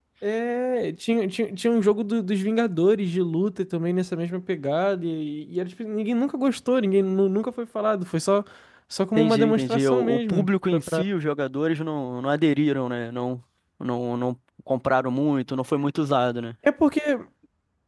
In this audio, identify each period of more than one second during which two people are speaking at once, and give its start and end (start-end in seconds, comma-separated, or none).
9.2-11.0